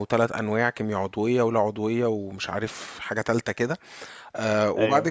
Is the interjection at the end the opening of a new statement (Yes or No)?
No